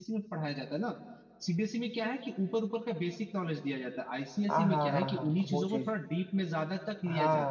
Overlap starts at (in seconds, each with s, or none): 4.5 s